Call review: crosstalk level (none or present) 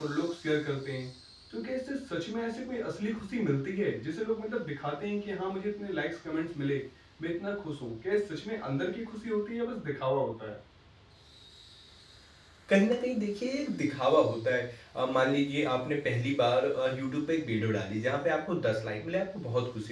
none